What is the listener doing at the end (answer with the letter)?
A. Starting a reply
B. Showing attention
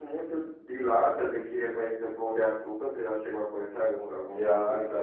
A